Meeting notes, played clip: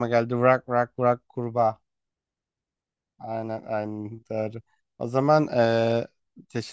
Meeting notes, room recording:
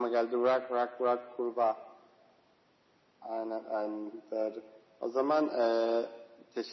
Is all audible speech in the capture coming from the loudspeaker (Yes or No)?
Yes